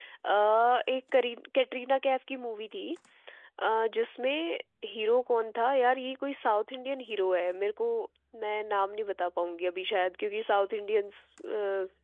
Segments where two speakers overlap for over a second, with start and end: none

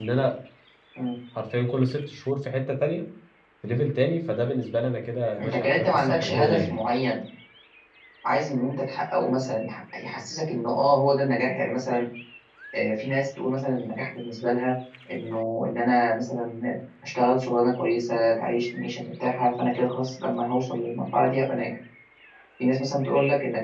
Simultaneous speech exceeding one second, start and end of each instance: 5.4-6.8

